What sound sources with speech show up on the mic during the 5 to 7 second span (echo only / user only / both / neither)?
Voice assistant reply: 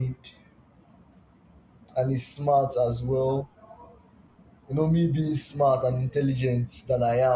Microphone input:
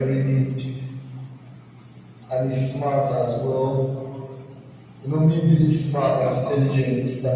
both